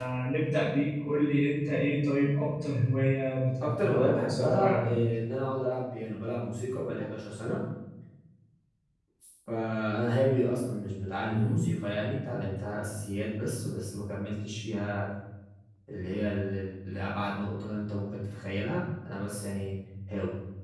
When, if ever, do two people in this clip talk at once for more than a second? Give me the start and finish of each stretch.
3.6-5.0

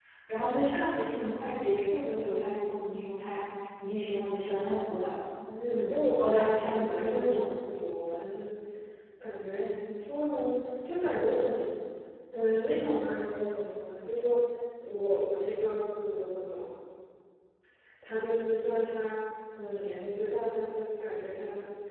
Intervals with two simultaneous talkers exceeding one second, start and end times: 5.6-7.5

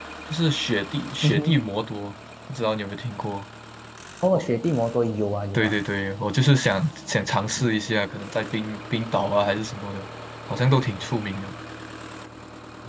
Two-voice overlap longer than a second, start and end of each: none

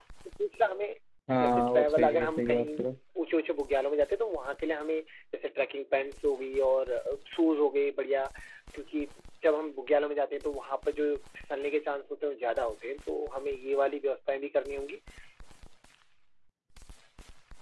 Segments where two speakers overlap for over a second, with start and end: 1.4-2.6

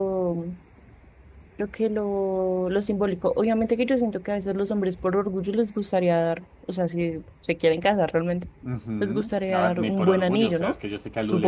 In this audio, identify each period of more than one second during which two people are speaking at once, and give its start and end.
9.0-10.7

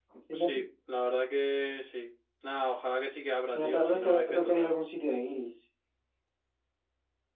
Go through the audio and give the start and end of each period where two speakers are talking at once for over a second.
3.5-4.7

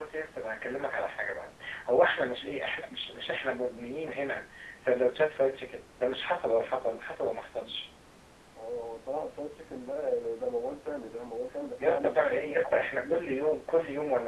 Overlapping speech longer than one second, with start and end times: 11.8-13.2

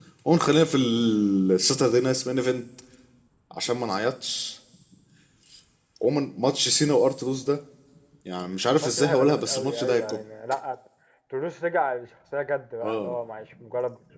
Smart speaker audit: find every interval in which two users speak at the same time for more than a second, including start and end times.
8.8-10.2

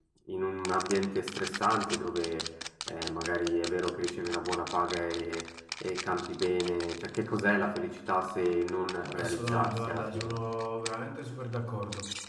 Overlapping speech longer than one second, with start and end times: 9.2-10.3

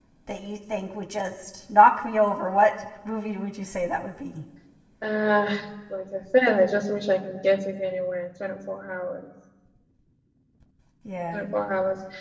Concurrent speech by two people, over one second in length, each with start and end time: none

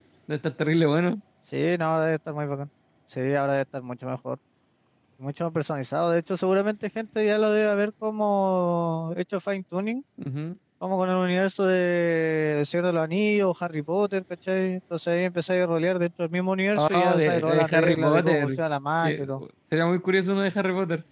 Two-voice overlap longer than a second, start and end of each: 16.8-18.5

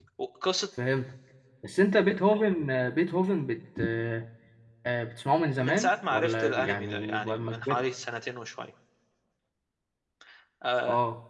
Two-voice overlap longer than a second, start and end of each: 5.5-7.8

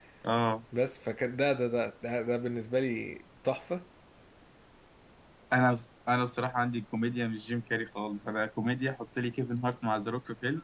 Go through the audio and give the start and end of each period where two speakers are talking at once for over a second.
none

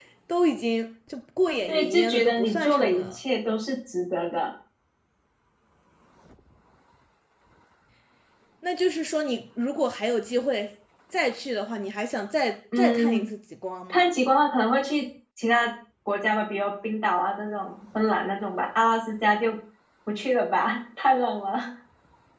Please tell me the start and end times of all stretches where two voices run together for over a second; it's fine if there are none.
1.7-3.1

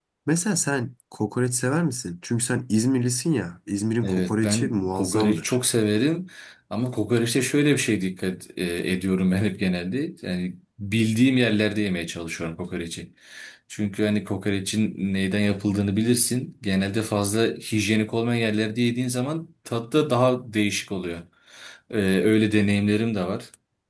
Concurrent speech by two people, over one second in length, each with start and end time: 4.0-5.6

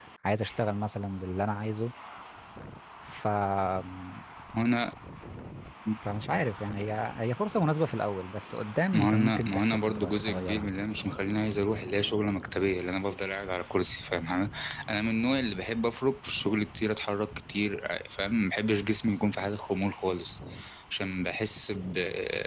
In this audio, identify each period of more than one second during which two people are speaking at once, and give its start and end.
8.9-10.7

